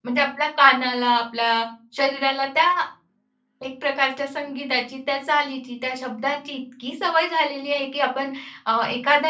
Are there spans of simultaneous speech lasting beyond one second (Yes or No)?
No